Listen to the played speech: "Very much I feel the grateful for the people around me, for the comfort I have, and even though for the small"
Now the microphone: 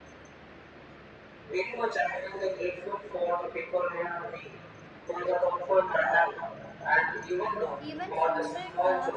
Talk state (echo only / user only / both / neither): both